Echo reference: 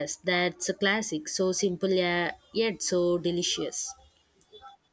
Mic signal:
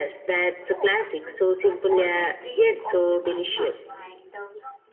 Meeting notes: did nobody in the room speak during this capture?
No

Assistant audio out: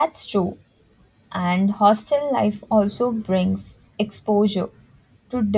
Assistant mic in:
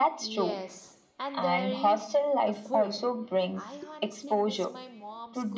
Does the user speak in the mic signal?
Yes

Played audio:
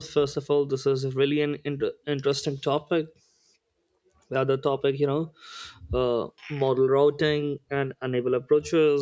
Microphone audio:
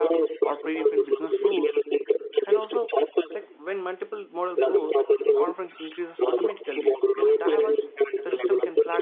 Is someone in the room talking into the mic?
Yes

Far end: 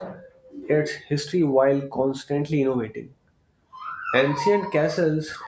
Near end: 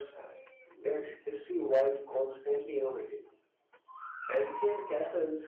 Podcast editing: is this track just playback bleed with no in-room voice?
Yes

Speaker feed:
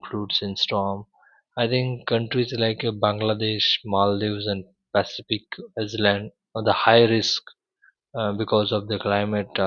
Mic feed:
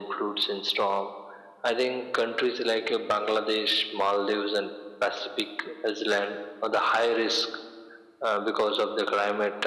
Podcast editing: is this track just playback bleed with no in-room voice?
Yes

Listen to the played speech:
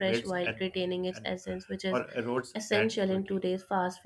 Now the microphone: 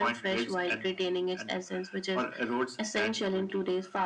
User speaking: No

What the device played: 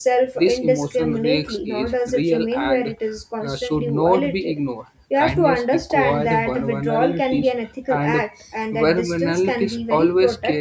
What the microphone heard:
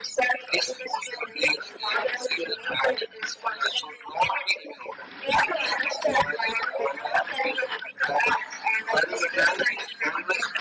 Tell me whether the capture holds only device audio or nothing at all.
Yes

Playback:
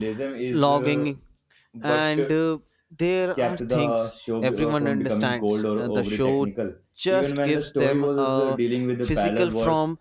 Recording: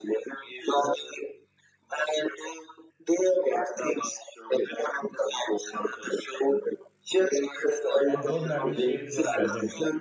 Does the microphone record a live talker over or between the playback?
Yes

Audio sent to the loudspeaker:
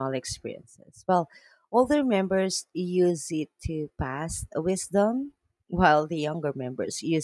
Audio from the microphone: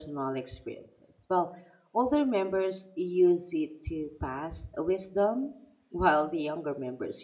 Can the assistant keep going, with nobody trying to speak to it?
Yes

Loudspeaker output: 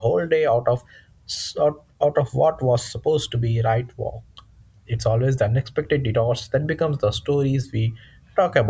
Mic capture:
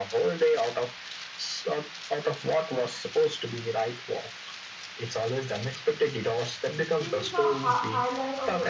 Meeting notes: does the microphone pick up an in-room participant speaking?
Yes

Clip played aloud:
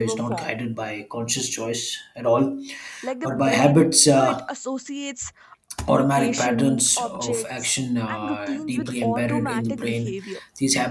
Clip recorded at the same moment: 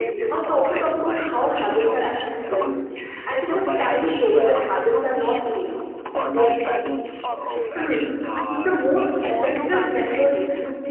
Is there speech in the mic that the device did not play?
Yes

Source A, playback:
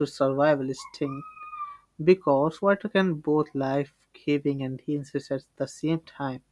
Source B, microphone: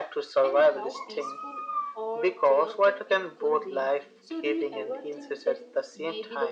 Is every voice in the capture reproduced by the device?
No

